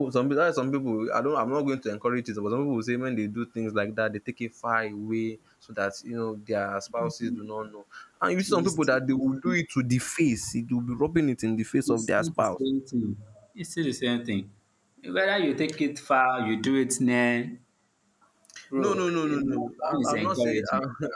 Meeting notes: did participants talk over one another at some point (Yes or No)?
Yes